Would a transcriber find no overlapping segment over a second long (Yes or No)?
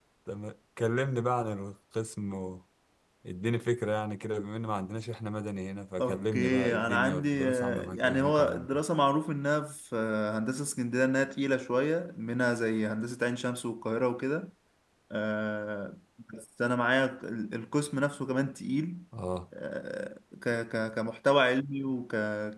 No